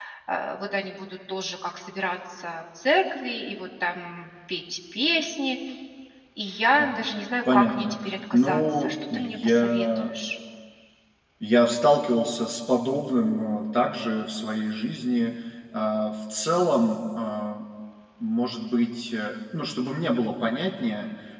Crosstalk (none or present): present